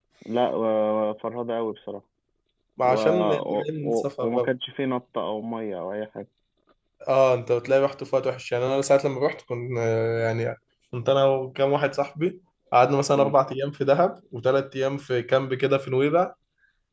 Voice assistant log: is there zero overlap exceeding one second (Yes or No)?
No